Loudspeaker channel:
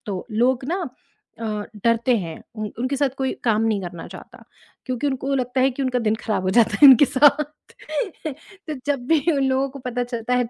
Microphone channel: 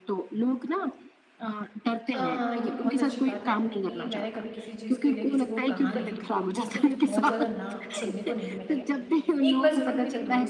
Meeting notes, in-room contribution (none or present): present